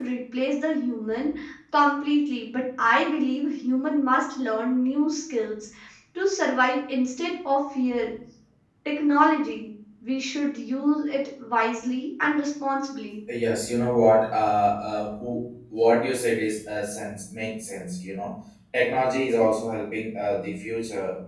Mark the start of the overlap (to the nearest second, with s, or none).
none